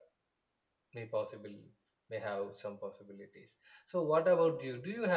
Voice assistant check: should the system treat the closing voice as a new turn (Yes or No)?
No